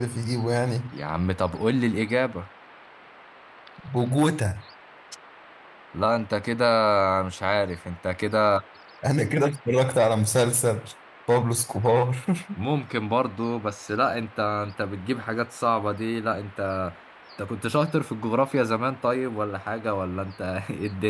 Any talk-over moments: No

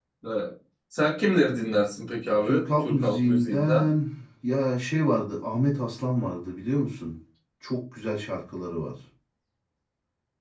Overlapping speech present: Yes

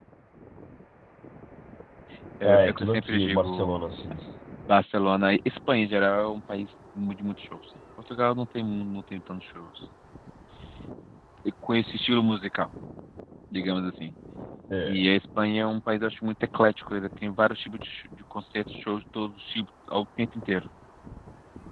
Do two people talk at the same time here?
Yes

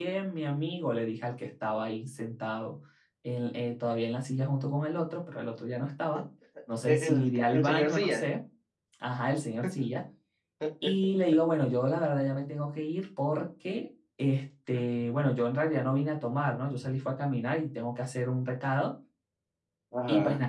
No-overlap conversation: No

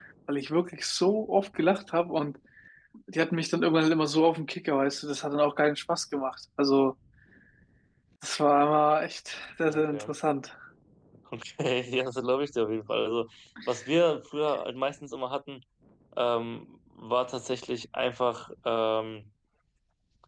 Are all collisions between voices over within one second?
Yes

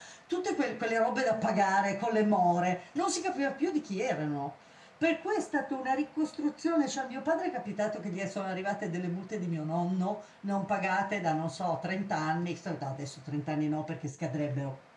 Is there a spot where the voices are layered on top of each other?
No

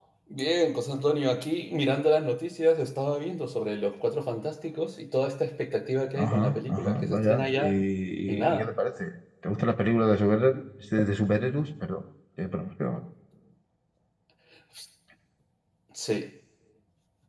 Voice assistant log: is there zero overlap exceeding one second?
No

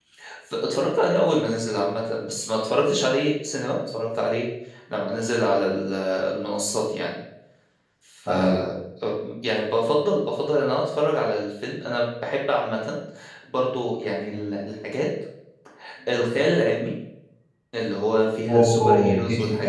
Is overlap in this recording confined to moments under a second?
No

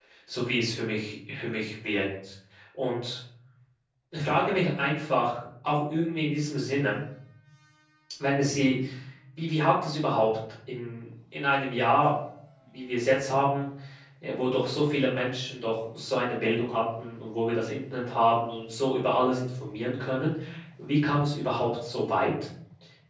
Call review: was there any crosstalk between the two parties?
No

